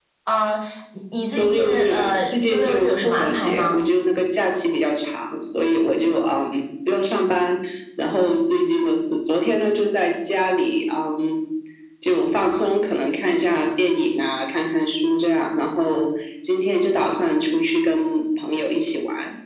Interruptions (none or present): present